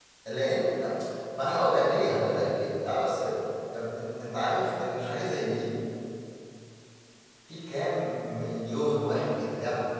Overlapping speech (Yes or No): No